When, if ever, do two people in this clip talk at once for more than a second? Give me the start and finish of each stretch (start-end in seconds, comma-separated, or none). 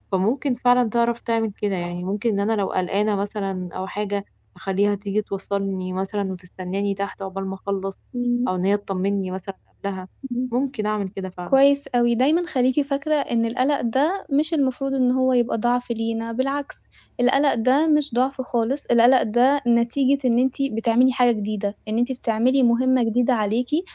none